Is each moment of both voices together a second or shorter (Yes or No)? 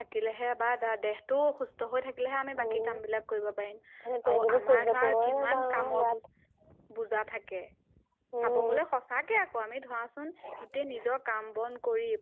No